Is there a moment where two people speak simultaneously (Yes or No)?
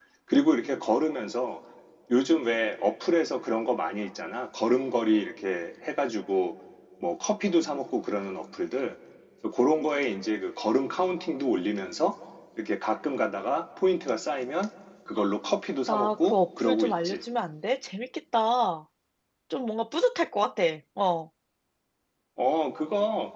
Yes